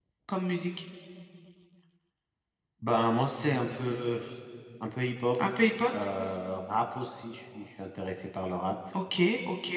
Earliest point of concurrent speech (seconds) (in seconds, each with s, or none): none